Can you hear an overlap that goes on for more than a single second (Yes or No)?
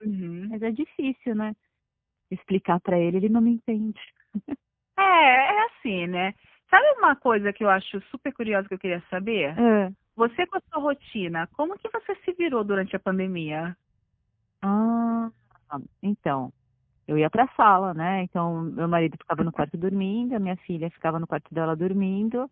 No